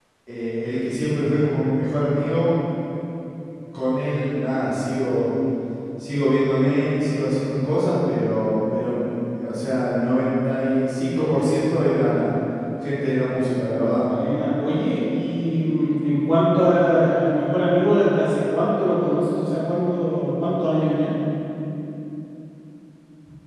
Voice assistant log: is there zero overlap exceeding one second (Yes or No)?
Yes